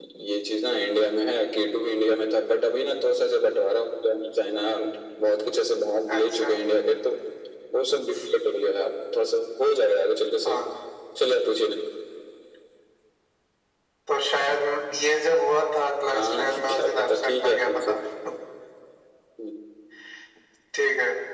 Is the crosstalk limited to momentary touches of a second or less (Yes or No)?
No